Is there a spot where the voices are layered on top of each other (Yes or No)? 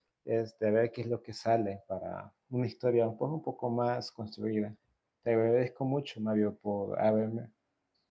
No